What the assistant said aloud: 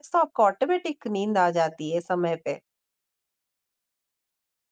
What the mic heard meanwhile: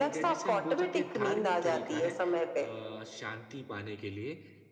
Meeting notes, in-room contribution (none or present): present